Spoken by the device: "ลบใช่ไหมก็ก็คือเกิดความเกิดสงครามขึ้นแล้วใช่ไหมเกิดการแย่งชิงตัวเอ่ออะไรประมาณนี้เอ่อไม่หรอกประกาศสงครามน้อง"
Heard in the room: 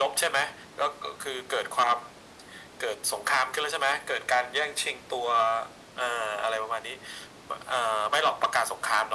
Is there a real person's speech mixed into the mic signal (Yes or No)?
No